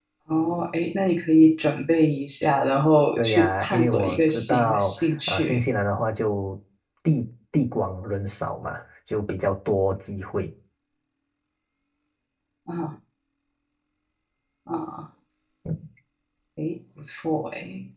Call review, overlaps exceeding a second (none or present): present